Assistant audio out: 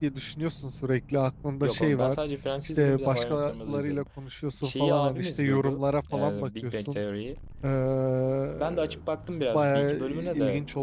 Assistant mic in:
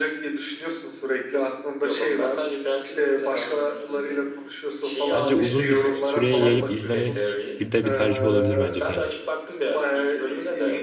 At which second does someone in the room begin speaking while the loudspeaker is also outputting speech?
5 s

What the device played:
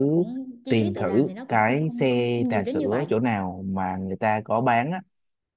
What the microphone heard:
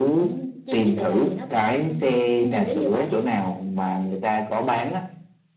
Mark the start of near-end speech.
none

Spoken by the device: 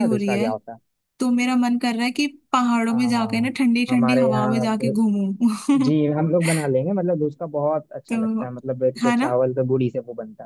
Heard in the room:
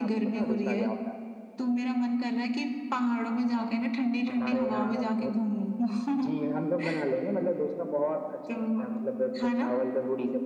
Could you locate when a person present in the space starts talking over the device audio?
none

